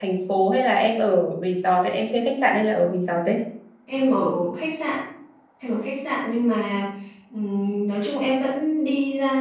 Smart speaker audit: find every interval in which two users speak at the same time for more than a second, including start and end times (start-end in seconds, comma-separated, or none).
none